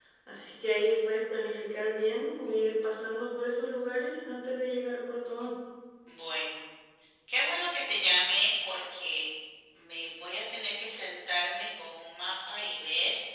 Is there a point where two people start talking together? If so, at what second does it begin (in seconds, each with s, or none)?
none